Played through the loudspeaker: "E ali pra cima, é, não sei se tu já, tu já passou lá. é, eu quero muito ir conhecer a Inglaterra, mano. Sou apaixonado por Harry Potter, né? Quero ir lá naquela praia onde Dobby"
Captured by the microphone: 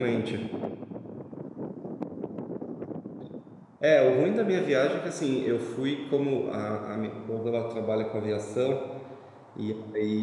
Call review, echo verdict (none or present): none